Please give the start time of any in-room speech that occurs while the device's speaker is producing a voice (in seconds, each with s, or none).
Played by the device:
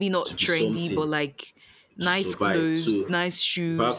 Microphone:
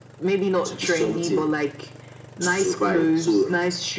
none